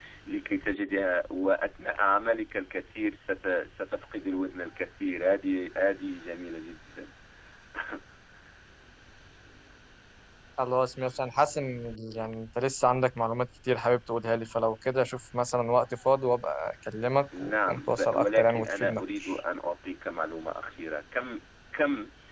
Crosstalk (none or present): present